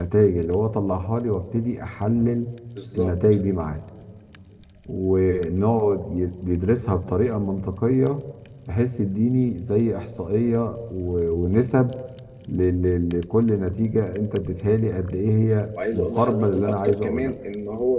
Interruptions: present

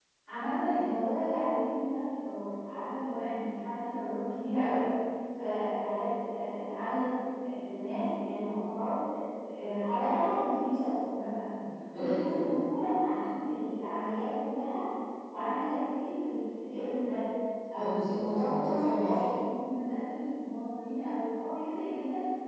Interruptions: present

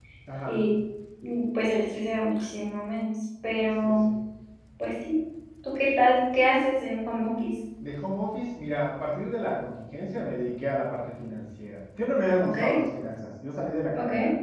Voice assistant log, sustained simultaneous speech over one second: none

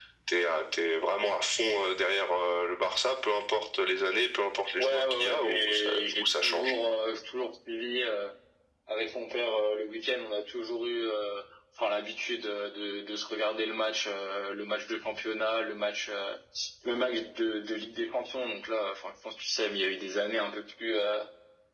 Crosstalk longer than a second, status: present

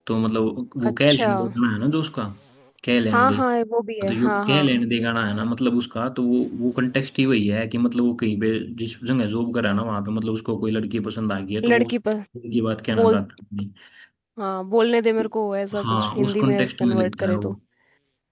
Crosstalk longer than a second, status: present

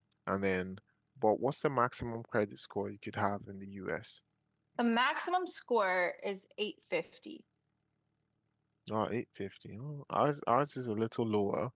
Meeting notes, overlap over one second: none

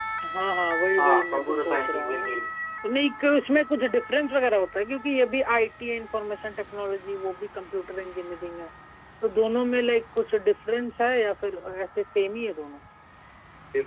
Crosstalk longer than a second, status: present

